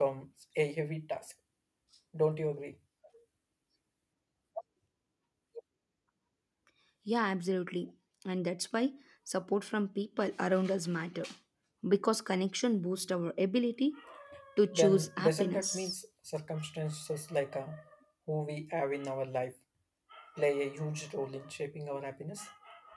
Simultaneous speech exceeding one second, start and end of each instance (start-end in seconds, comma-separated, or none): 14.7-16.0